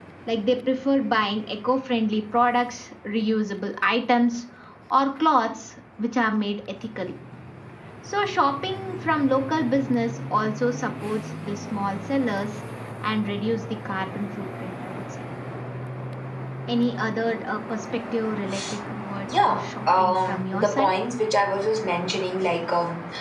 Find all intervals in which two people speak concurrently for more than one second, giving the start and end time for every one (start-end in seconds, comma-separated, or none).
19.5-20.9